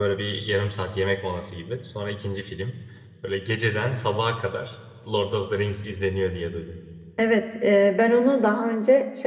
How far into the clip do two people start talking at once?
none

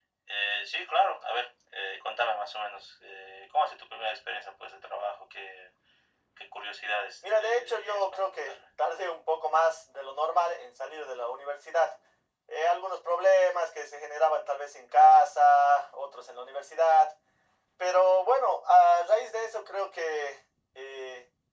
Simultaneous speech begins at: 7 s

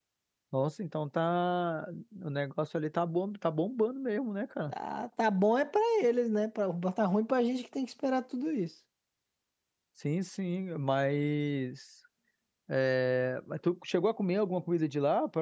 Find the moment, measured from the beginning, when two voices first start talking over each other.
none

